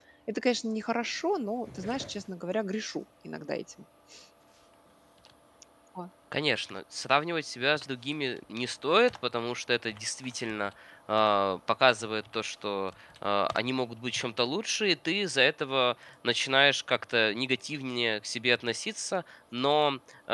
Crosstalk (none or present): none